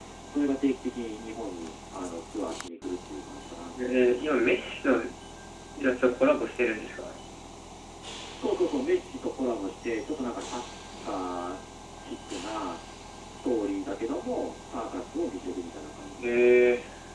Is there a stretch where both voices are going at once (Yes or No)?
No